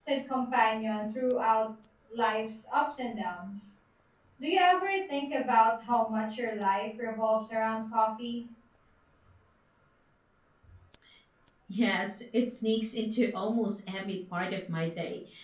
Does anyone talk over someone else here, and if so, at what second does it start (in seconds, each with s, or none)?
none